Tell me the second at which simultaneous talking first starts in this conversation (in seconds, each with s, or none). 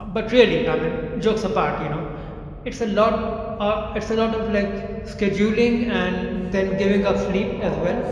6.5 s